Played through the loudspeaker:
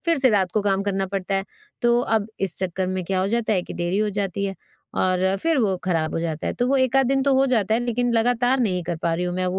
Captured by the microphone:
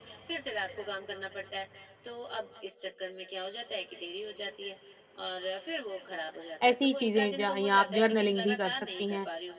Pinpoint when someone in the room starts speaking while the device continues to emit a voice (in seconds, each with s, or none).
6.7 s